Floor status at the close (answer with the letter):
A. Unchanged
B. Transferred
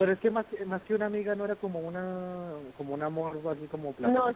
B